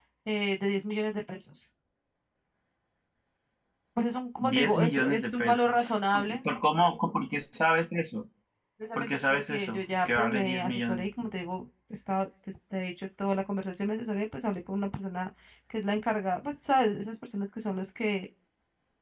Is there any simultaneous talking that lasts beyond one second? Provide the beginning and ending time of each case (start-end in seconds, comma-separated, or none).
4.4-6.4, 9.0-11.0